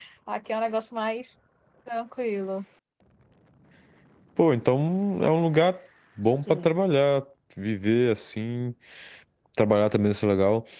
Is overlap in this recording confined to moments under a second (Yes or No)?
Yes